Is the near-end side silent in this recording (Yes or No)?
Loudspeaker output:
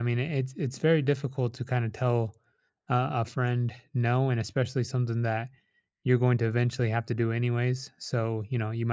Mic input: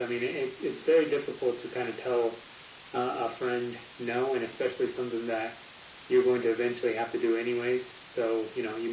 Yes